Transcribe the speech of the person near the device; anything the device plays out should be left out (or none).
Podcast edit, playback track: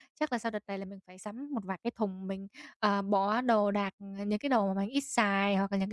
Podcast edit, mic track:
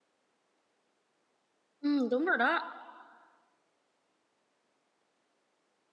ừm, đúng rồi đó.